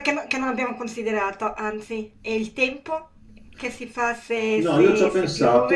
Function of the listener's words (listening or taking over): taking over